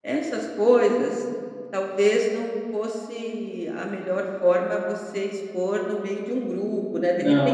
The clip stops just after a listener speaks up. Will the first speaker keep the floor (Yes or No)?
No